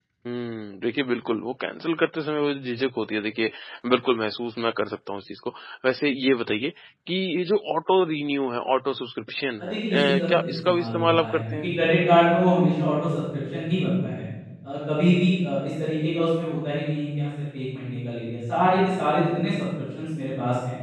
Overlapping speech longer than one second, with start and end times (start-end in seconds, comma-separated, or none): 9.6-11.7